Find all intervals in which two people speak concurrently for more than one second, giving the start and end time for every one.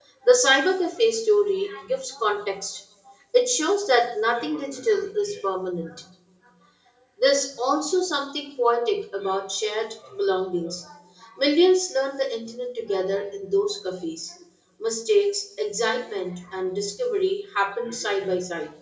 none

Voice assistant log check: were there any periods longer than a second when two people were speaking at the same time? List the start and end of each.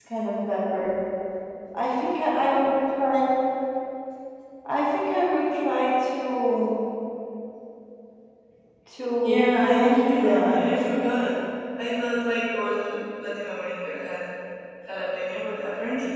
9.2-10.7

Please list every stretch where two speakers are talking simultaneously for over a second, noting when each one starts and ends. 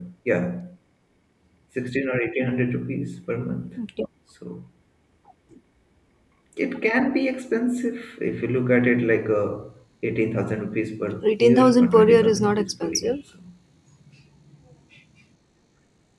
11.2-13.2

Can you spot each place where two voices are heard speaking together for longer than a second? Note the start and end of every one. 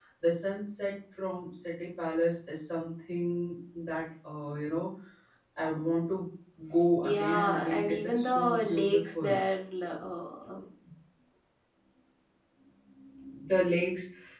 7.0-9.3

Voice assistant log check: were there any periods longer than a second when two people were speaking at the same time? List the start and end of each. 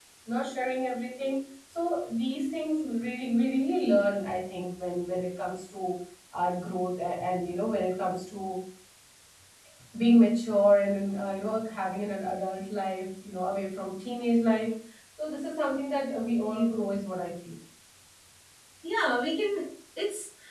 none

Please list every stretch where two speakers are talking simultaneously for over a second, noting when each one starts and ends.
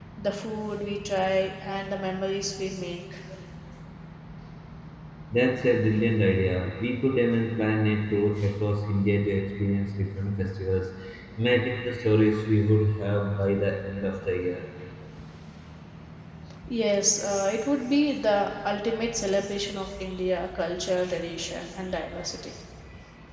none

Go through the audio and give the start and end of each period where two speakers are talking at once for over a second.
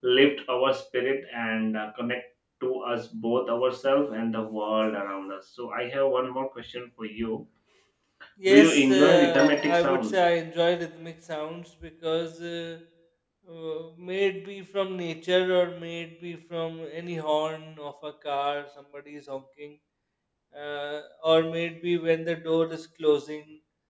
8.5-10.2

